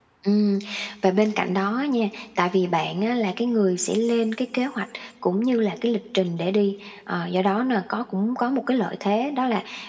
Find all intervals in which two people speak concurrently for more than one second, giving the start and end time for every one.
none

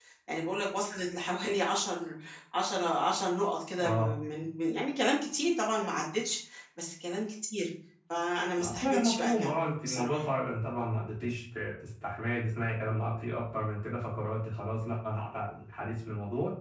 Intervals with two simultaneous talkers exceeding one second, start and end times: 8.6-10.2

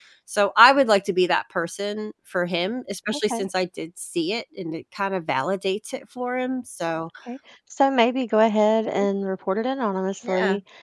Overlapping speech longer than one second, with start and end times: none

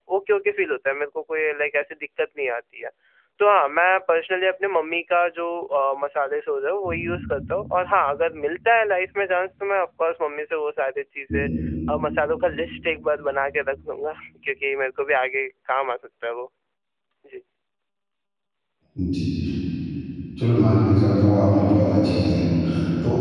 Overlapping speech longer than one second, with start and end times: none

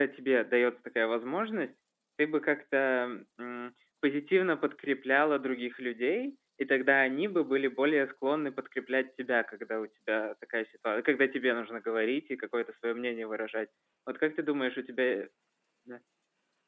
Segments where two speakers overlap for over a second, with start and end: none

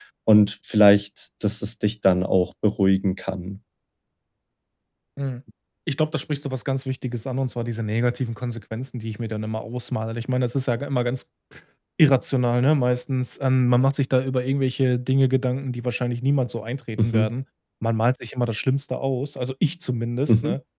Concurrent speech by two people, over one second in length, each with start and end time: none

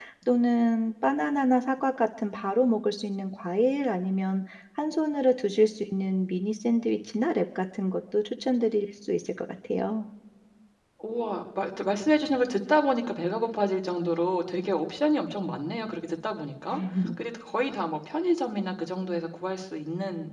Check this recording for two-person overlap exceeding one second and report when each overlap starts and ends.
none

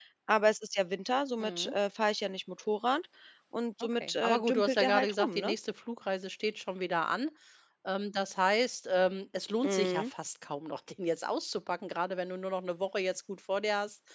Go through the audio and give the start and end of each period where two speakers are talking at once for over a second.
4.0-5.5

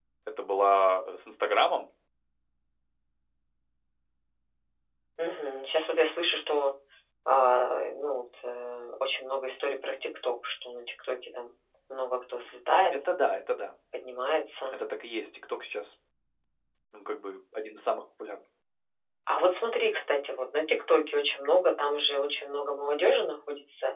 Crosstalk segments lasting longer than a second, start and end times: none

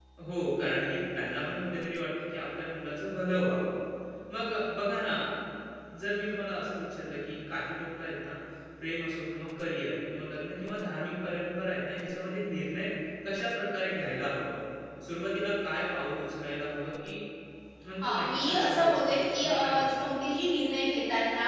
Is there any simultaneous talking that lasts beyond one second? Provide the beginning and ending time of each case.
18.0-20.1

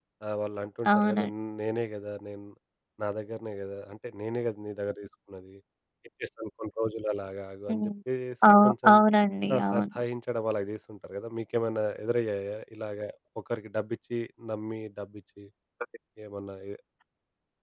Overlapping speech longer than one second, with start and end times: none

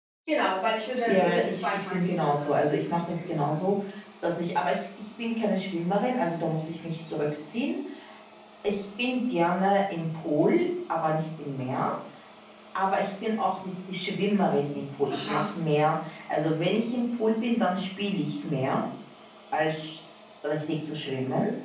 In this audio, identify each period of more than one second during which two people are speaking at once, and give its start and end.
1.1-3.7

